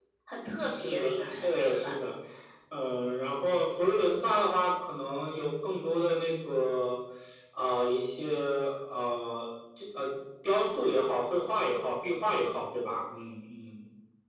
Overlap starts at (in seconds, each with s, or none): 0.6 s